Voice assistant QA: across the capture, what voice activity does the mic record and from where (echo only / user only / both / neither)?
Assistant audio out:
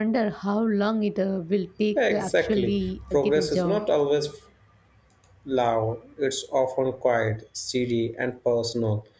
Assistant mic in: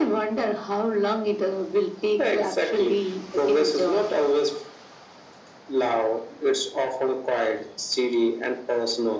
echo only